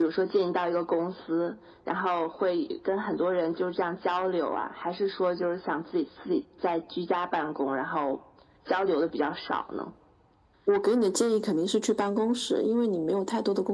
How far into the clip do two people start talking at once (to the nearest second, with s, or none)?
none